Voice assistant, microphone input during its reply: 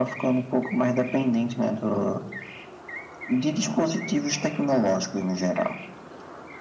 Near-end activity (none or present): none